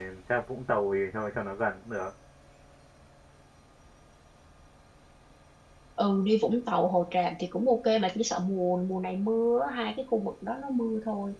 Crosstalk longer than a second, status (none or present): none